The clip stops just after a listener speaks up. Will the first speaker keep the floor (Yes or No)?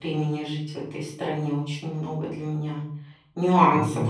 Yes